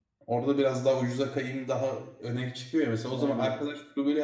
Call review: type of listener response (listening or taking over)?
listening